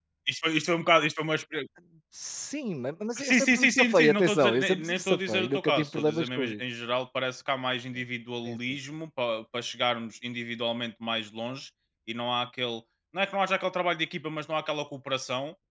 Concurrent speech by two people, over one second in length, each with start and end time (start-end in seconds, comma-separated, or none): 3.2-6.6